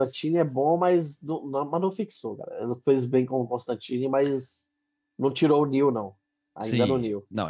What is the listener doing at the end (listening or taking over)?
taking over